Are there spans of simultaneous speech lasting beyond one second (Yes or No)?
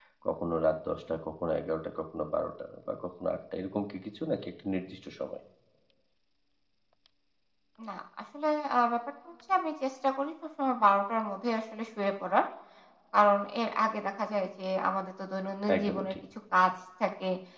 No